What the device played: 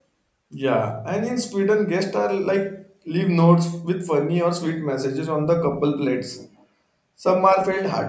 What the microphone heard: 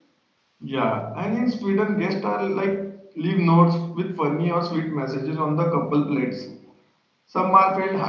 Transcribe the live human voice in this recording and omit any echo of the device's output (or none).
none